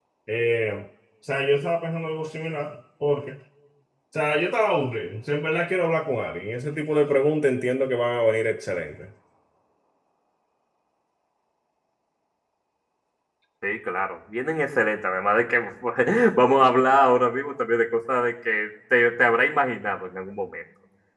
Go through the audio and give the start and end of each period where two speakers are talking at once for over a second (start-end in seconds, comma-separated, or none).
none